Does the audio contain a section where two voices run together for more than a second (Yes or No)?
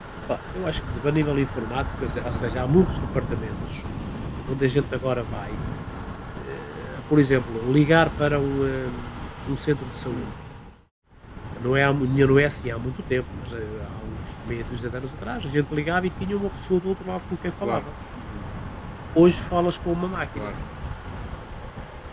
No